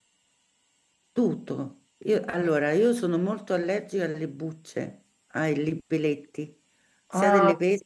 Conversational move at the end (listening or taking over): listening